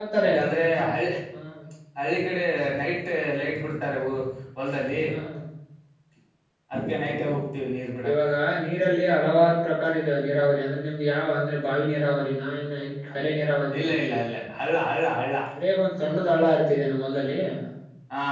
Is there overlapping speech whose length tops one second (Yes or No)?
No